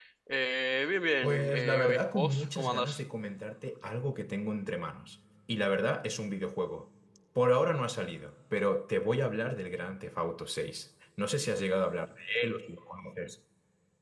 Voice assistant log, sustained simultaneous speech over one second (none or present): present